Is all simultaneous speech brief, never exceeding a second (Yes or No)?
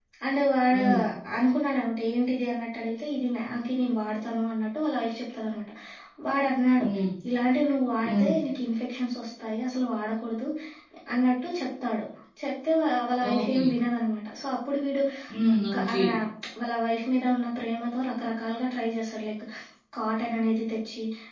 Yes